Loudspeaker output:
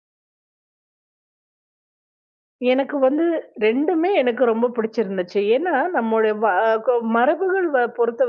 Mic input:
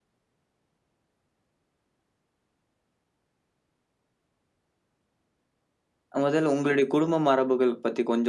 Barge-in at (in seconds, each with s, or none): 6.2 s